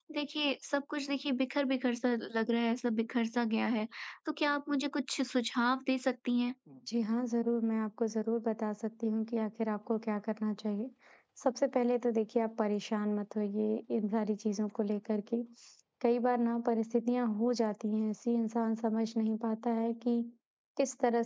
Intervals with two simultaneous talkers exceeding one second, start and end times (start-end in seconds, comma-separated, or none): none